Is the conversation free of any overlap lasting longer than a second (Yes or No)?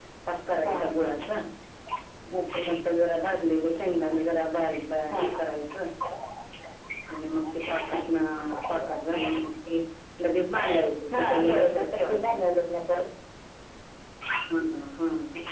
No